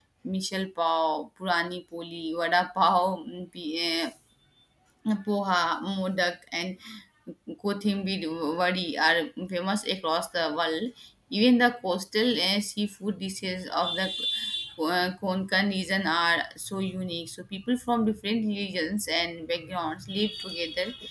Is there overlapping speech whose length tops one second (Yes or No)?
No